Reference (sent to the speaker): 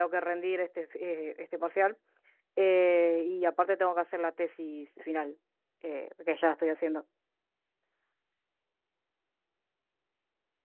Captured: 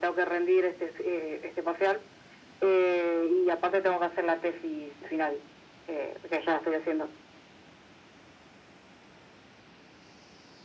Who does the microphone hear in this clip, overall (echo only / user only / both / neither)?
echo only